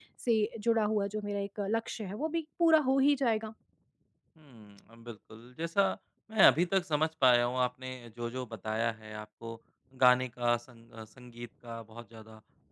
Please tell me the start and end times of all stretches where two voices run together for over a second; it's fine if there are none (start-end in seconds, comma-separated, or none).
none